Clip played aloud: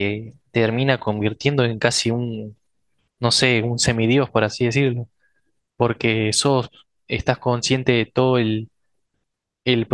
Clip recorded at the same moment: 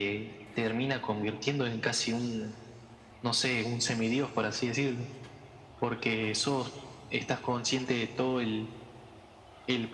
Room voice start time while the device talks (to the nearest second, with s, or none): none